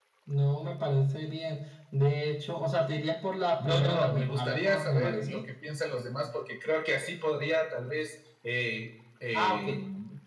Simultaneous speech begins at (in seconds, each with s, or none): 3.6 s